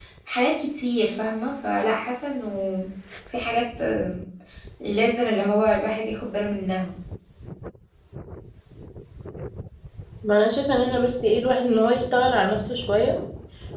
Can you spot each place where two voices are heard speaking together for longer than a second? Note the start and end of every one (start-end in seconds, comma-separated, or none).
none